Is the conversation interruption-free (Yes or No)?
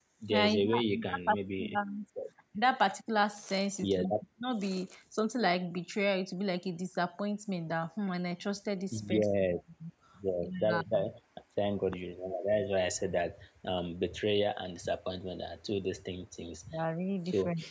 No